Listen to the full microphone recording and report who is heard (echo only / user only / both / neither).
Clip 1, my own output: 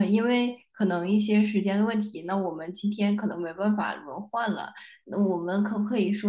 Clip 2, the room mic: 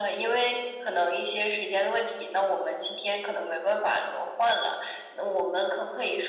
echo only